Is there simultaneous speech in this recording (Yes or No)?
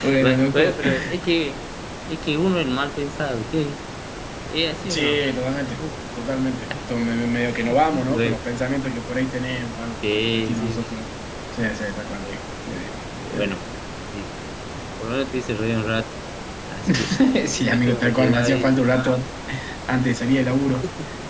Yes